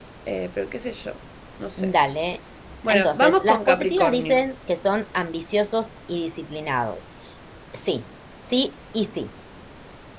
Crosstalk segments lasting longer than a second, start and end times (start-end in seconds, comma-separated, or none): 2.9-4.4